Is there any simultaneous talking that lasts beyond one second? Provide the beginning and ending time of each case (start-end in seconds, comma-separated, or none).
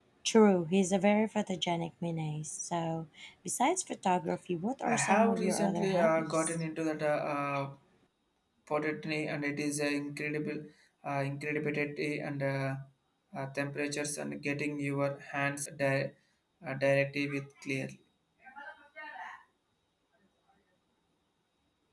4.8-6.6